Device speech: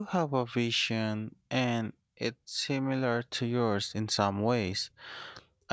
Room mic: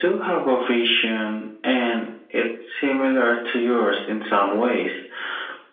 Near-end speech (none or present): none